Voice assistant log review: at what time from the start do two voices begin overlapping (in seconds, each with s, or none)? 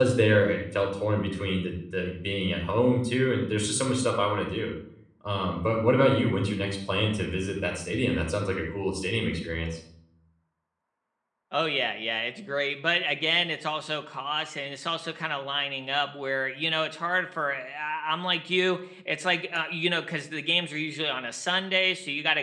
none